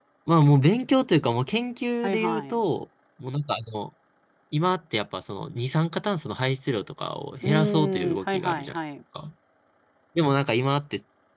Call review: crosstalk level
present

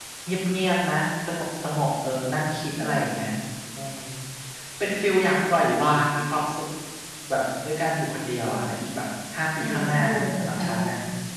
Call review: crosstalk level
present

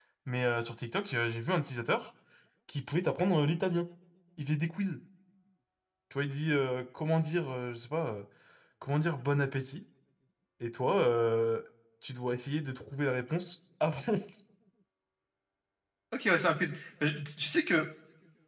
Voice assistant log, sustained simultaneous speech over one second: none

